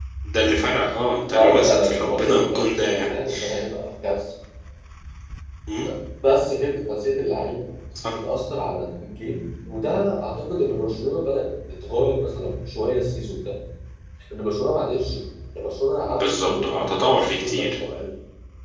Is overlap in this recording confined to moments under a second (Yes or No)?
No